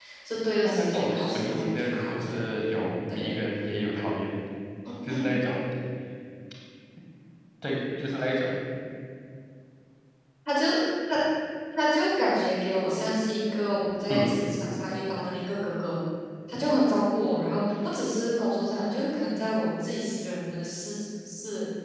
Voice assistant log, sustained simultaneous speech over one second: present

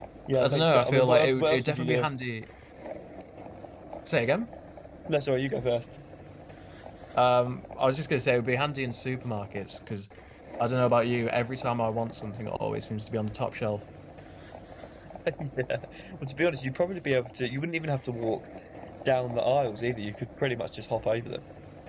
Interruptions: present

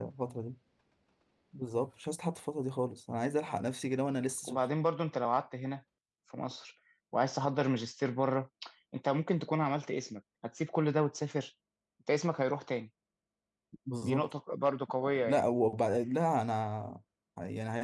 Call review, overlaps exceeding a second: none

